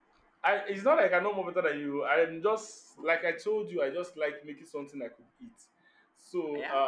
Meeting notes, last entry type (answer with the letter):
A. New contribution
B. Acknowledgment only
B